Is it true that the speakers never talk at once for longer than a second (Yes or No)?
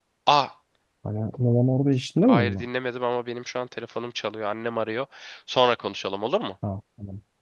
Yes